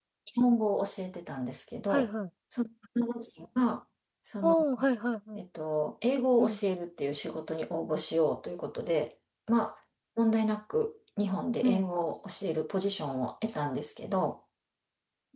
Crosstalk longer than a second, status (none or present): none